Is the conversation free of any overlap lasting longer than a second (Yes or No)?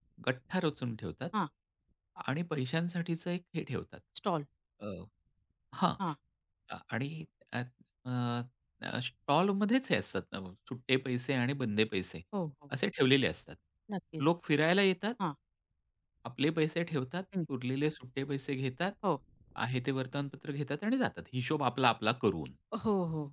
Yes